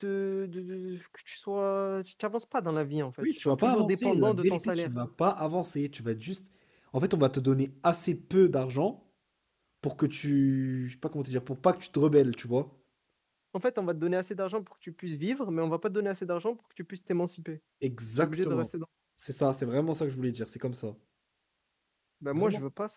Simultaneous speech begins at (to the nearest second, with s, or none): 3 s